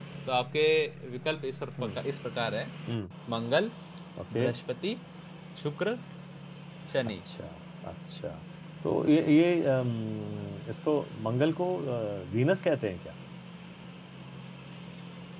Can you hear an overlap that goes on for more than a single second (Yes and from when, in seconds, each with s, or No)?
No